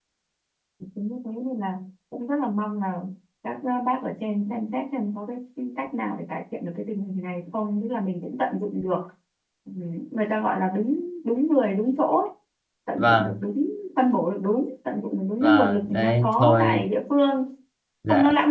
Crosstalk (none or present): present